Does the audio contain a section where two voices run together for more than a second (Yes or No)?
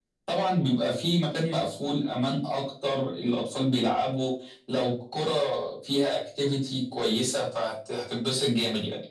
No